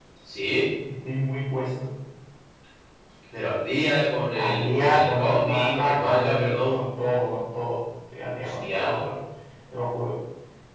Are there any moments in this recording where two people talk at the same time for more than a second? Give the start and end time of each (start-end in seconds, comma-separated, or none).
4.3-6.8